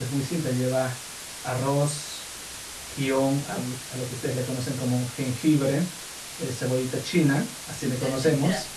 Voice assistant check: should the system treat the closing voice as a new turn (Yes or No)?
Yes